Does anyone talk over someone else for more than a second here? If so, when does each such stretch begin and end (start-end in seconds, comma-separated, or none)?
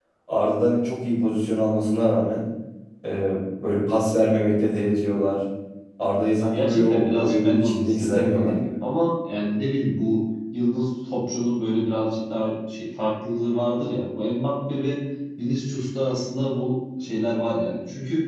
6.4-8.7